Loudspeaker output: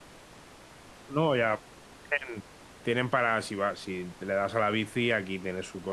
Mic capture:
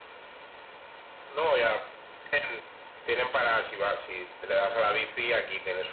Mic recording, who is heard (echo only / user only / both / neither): echo only